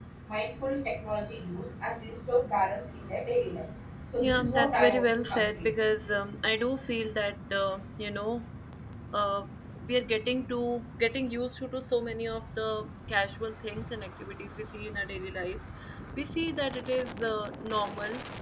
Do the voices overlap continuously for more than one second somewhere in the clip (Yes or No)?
Yes